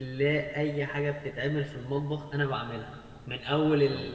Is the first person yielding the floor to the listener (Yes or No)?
No